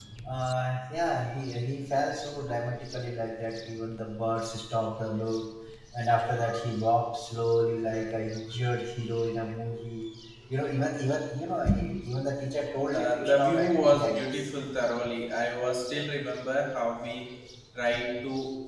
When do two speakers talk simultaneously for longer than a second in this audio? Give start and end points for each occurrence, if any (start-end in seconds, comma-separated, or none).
12.9-14.5